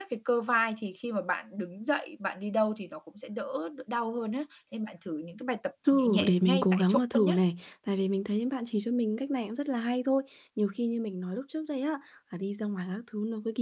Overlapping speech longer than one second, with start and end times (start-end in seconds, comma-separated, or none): 5.9-7.3